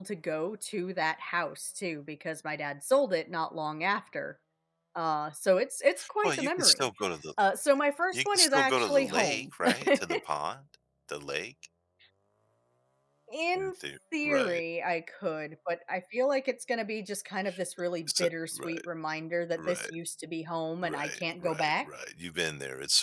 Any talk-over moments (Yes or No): Yes